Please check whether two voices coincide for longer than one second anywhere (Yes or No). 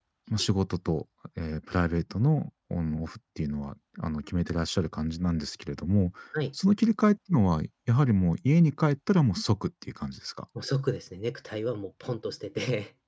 No